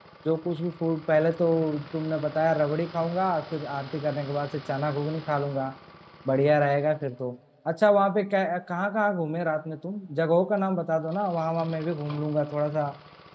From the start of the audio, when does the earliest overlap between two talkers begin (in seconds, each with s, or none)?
none